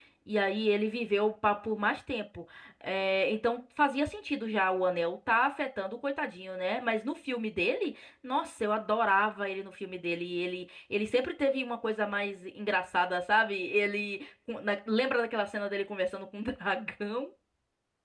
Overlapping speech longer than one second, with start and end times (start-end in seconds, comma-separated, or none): none